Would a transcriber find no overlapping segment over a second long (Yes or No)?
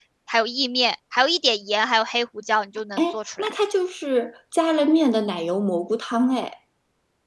Yes